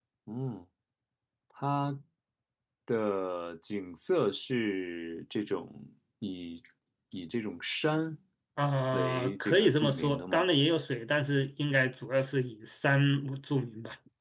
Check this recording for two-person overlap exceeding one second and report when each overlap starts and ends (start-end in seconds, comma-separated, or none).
8.9-10.4